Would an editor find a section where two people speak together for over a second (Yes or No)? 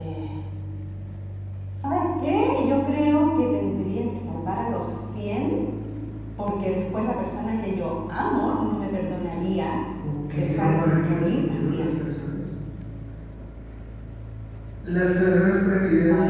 Yes